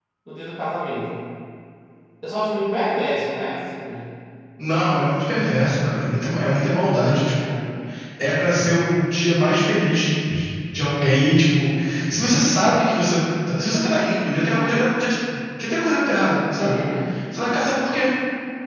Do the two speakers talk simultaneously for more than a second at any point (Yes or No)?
No